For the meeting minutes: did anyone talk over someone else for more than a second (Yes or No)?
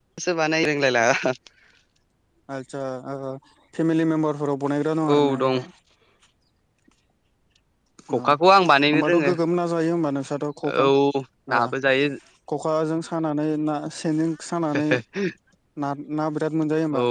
No